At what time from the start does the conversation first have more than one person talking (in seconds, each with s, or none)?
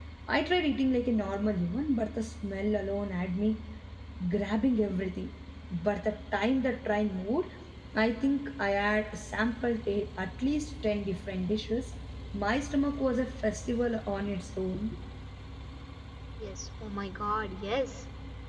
none